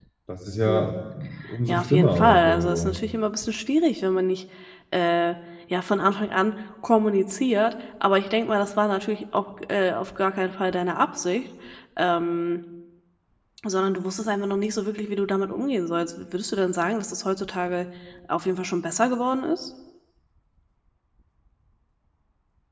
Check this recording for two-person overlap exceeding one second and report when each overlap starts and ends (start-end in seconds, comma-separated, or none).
1.7-3.0